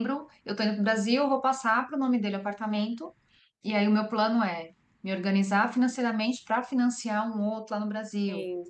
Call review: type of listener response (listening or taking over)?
listening